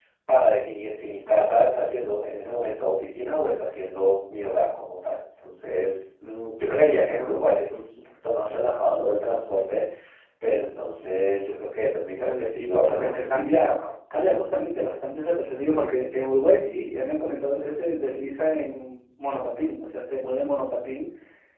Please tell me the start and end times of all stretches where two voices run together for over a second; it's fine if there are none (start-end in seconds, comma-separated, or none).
12.2-13.8